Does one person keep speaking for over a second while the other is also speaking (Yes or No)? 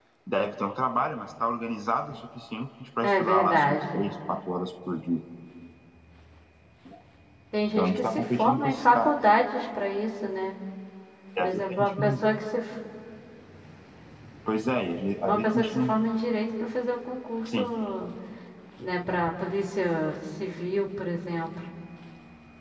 Yes